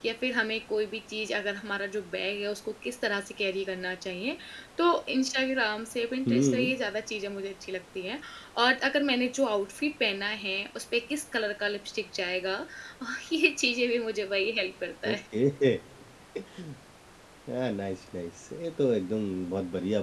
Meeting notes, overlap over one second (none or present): none